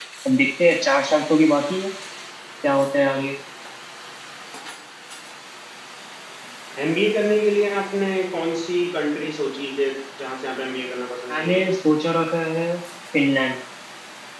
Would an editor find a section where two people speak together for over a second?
No

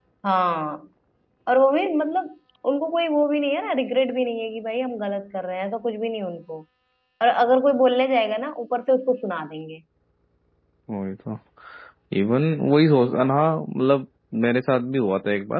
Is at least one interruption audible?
No

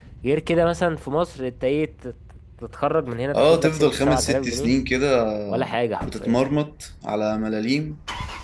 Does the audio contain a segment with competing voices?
Yes, from 3.3 s

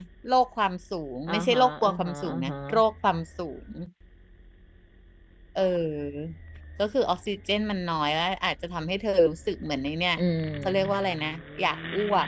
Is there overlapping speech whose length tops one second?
Yes, from 1.3 s

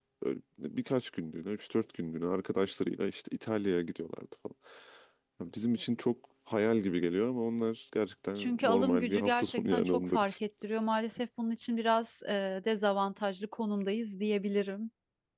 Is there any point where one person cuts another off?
Yes, from 8.4 s

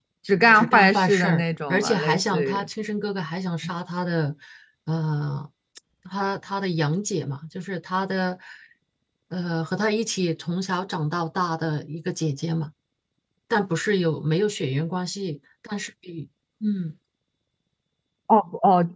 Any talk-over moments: Yes, from 0.6 s

